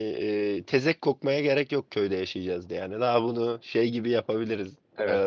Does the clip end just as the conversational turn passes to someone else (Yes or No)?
Yes